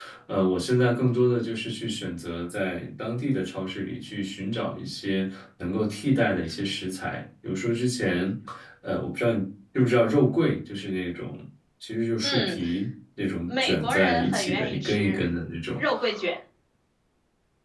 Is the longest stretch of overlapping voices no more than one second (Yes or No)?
No